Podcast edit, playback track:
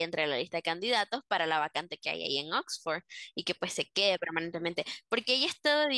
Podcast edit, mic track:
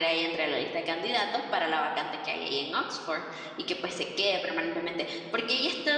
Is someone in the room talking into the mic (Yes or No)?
No